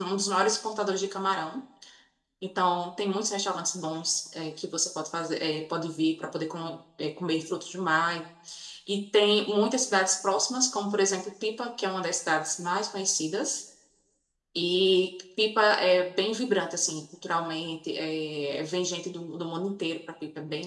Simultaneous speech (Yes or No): No